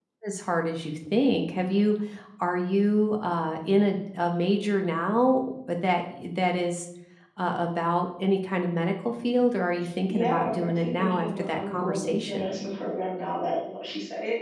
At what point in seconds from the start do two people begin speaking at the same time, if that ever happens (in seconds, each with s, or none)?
10.1 s